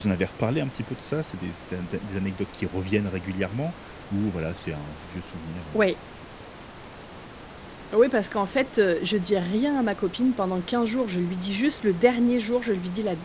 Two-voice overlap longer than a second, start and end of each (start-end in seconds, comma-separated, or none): none